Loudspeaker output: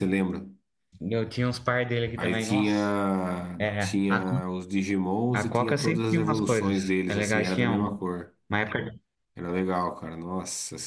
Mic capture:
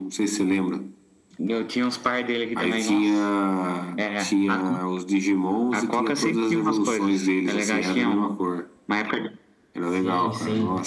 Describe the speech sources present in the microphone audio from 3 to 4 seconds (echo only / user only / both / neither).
echo only